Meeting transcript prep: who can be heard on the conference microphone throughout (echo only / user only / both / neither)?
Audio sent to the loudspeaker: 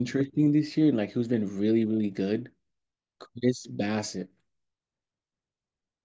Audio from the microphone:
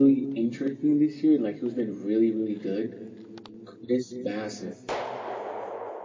echo only